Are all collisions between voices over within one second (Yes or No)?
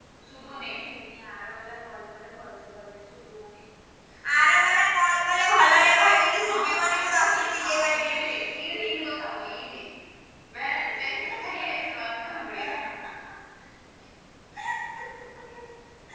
No